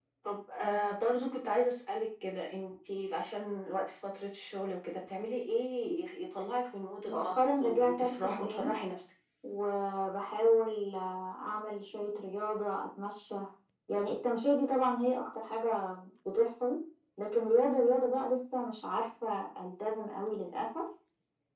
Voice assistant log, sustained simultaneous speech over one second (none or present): present